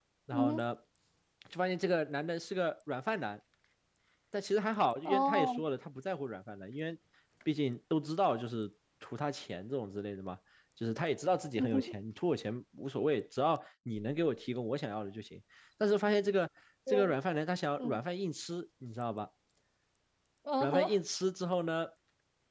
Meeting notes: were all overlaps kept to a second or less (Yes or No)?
Yes